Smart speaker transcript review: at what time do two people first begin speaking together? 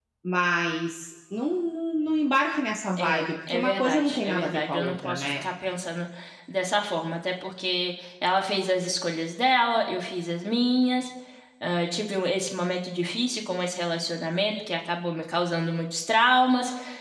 3.0 s

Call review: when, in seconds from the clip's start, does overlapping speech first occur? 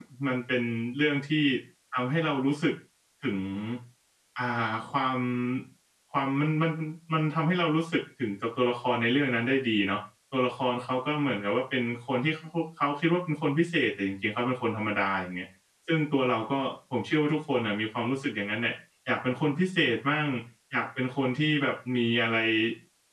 none

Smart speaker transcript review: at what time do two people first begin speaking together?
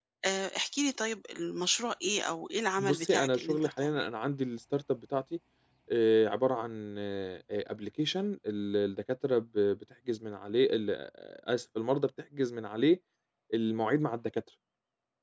2.8 s

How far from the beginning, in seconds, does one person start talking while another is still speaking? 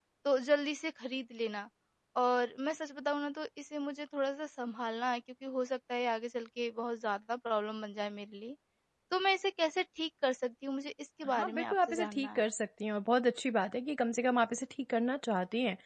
11.2 s

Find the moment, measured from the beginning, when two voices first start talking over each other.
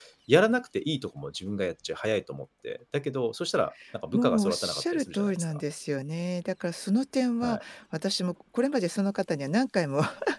4.1 s

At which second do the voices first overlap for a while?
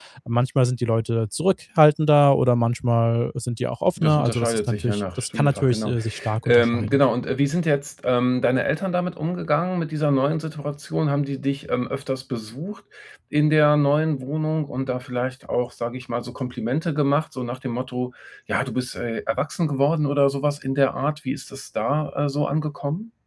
4.0 s

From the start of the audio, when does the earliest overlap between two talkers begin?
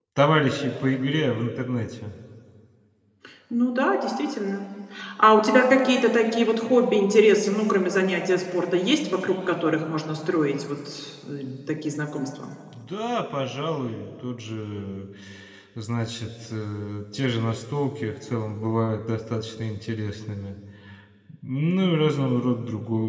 none

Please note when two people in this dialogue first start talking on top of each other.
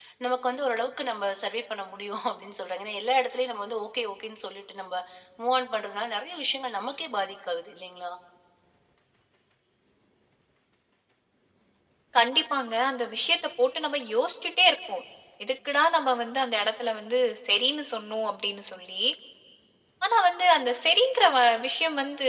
none

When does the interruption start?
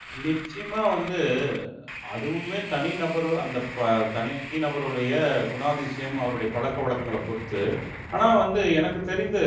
none

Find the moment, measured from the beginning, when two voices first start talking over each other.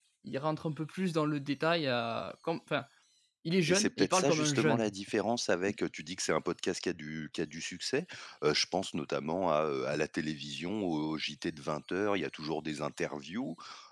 3.7 s

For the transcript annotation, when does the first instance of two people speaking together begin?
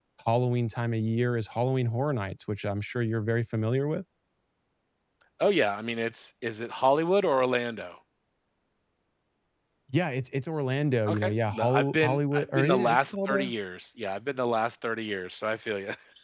11.1 s

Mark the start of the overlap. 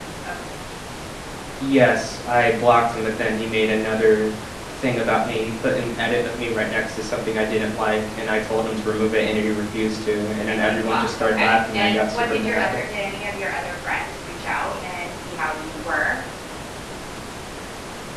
10.5 s

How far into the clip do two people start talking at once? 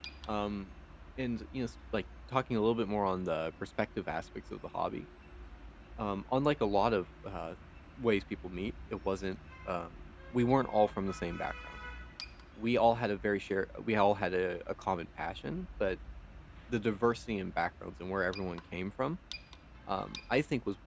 none

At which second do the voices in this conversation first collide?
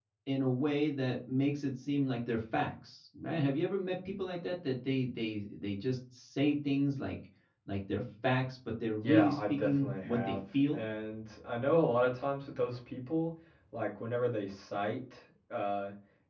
9.0 s

